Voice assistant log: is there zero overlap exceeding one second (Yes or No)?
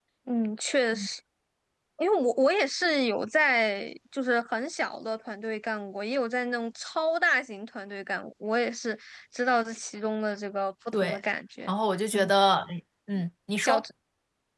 Yes